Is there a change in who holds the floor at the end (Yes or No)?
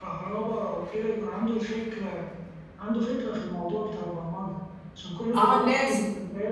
Yes